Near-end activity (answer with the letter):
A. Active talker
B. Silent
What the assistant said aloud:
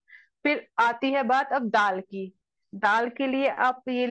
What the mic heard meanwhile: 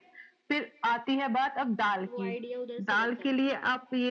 A